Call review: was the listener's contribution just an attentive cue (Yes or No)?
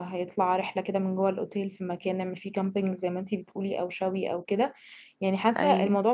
Yes